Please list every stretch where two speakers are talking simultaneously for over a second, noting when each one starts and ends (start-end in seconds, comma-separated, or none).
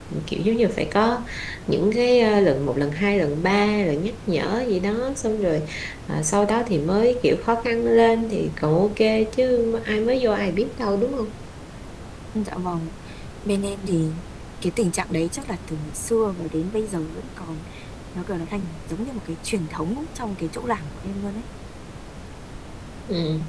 none